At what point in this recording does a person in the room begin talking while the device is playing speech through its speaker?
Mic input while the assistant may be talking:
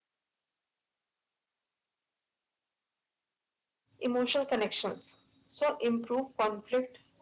4 s

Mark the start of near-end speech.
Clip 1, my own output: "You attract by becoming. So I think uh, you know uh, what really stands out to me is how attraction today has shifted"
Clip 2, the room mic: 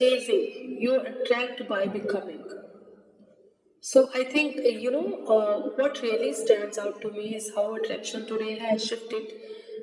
none

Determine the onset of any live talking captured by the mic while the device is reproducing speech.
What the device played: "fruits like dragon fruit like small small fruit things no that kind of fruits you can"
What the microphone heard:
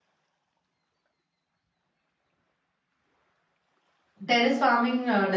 4 s

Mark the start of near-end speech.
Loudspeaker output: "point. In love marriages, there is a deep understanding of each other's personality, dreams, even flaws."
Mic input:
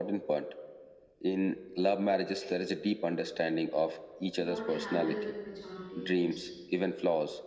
4 s

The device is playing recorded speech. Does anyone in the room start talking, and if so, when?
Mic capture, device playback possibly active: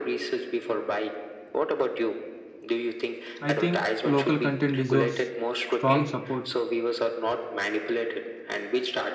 3 s

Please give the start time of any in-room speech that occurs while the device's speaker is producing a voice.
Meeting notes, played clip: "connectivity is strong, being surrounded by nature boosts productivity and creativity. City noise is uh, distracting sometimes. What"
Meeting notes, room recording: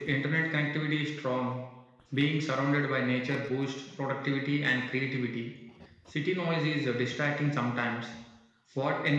none

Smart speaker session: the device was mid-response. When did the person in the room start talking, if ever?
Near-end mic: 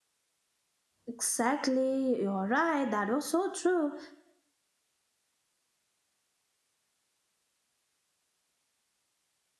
1 s

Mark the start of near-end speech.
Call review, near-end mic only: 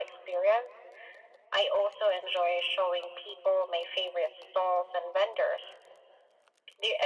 none

